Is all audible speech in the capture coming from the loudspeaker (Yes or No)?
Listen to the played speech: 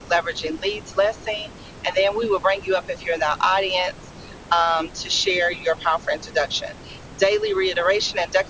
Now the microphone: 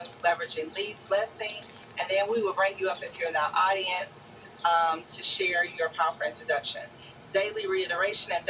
Yes